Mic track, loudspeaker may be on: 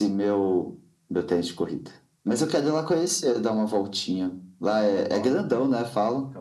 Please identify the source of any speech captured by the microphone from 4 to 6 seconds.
both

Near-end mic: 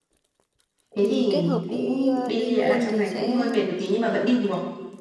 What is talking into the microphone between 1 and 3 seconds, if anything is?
both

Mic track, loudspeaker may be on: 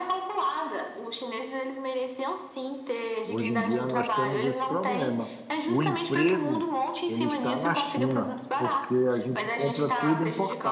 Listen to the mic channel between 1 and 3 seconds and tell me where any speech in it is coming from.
echo only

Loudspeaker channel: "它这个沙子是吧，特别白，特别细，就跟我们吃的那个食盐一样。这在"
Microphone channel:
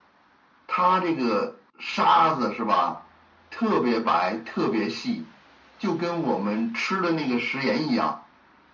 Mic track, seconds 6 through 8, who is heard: echo only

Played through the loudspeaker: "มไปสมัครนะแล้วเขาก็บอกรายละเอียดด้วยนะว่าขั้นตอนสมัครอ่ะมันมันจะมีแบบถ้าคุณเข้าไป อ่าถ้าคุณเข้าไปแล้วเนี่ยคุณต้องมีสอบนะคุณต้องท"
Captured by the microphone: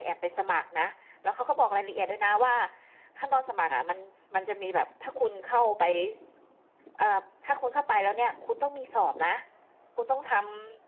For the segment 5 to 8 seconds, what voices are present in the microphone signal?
echo only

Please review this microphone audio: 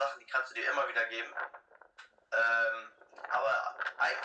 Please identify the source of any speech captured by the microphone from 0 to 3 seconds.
echo only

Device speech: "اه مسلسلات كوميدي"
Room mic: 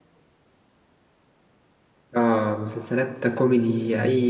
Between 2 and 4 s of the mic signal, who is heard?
echo only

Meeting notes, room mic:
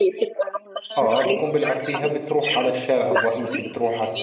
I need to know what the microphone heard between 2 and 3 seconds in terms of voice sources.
both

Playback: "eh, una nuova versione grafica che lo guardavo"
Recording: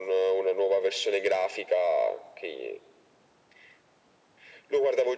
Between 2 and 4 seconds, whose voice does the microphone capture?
echo only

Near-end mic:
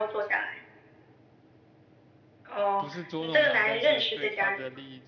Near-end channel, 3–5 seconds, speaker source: both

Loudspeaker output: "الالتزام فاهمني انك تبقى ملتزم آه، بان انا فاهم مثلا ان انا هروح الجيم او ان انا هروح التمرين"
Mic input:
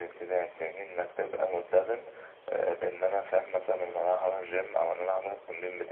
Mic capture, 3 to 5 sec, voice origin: echo only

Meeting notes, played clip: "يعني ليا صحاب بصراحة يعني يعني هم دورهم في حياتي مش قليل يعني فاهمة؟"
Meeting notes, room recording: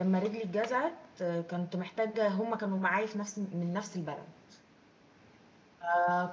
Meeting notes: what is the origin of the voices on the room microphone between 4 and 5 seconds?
user only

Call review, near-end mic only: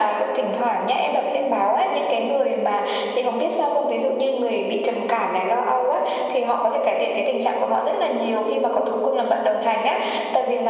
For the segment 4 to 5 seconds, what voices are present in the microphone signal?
echo only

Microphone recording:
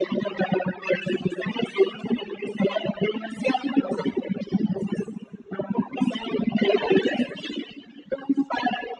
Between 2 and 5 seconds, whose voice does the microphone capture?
echo only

